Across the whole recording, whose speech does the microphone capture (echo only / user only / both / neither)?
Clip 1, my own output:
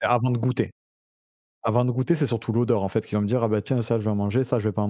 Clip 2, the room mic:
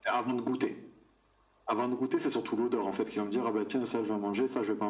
echo only